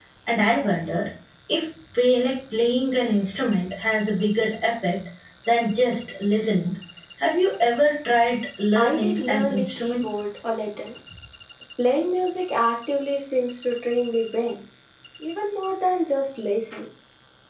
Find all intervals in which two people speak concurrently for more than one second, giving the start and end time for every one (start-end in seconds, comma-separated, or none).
8.8-10.0